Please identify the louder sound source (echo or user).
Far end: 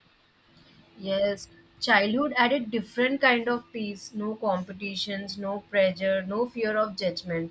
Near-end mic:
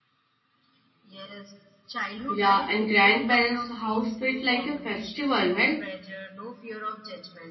user